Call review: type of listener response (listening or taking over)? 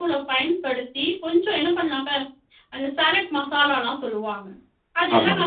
listening